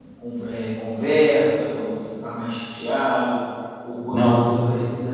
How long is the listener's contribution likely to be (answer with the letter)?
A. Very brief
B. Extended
A